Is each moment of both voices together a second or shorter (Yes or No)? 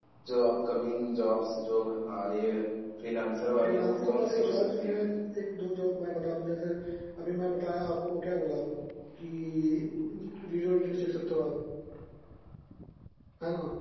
No